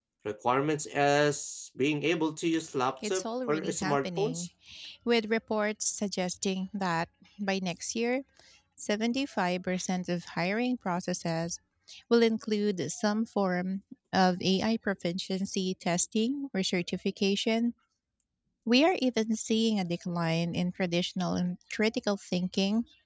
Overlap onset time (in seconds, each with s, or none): 3.0 s